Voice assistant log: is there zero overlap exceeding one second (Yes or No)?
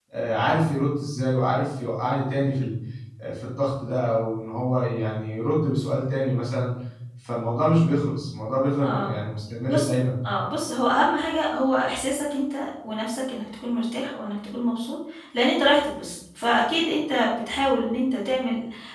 Yes